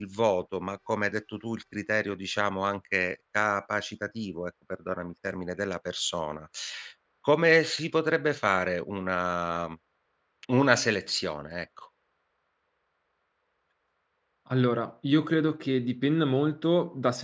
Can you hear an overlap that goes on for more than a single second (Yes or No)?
No